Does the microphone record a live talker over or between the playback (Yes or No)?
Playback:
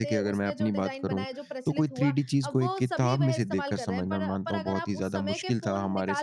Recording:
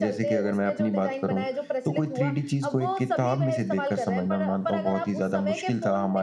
No